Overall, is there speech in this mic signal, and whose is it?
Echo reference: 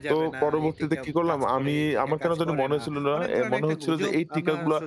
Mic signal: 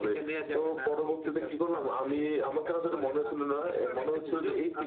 echo only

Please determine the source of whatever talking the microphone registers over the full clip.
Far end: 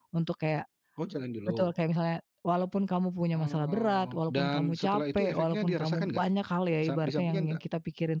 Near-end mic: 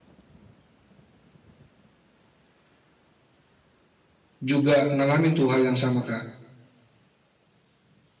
user only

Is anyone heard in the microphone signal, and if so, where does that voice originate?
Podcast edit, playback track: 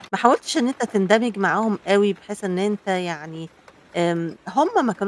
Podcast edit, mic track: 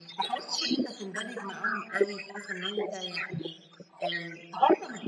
echo only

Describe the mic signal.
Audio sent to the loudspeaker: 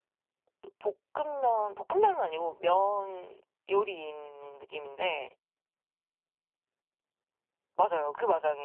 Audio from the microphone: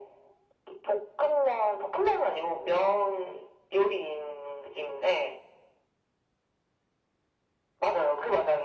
echo only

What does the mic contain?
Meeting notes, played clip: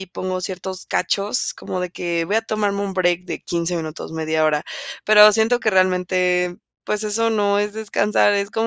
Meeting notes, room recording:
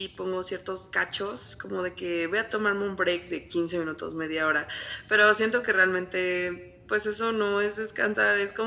echo only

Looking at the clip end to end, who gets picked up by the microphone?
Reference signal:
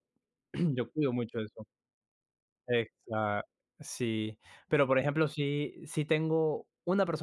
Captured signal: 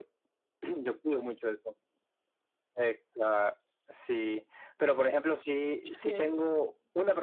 both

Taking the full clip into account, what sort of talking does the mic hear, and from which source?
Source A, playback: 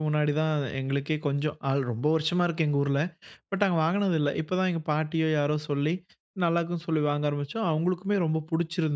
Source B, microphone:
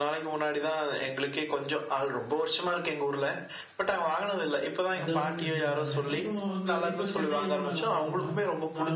both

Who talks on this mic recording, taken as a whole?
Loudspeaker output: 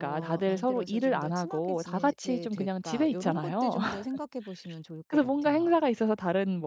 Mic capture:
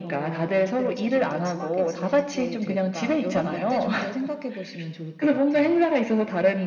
echo only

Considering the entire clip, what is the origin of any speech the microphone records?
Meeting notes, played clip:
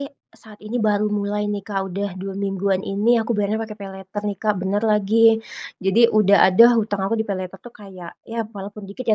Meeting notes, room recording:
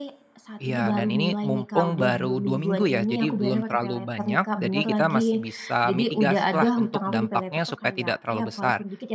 both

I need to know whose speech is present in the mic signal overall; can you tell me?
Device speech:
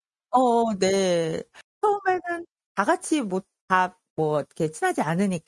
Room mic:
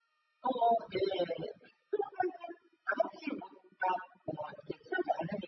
echo only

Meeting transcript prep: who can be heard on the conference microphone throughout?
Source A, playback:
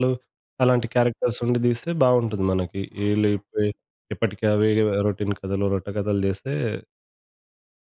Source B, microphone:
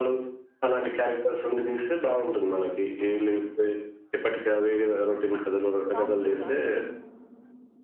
both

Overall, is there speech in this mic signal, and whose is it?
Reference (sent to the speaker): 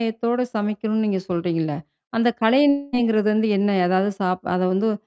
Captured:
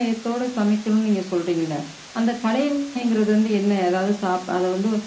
echo only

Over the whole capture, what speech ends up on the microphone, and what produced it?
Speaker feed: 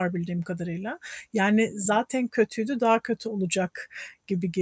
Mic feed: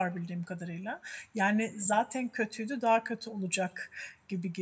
echo only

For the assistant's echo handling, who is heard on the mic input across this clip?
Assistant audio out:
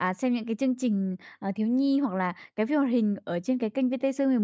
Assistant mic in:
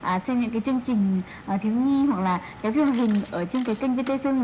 echo only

